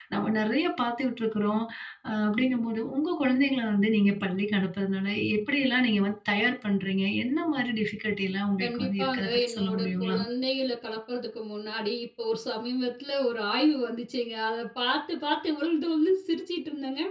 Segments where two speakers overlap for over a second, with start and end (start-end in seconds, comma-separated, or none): 8.6-10.2